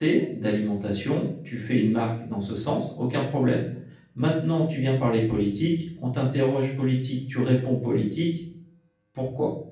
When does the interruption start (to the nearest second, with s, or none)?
none